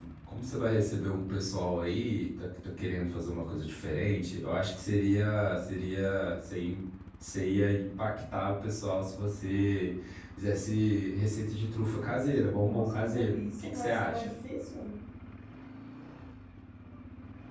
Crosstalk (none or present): present